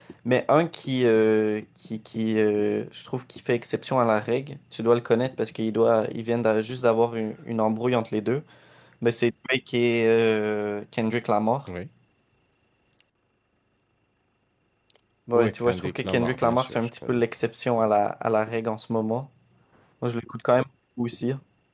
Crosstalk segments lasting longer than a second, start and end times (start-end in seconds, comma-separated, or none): 15.3-17.2